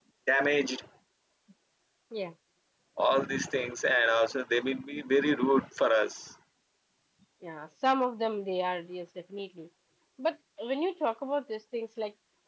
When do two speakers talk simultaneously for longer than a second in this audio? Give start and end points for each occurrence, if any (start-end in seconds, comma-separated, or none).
none